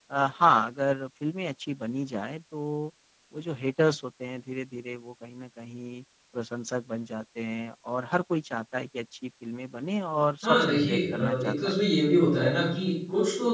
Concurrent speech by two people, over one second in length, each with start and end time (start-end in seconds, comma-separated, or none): 10.4-11.8